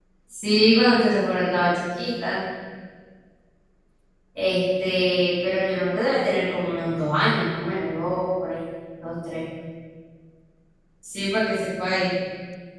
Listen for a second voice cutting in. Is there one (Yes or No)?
No